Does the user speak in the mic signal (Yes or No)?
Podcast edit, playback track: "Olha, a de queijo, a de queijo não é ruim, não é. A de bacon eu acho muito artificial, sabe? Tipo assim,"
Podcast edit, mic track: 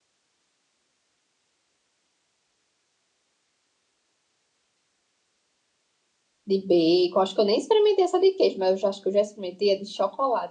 Yes